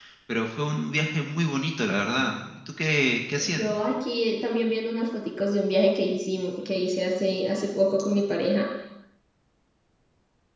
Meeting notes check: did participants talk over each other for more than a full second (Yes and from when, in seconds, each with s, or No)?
No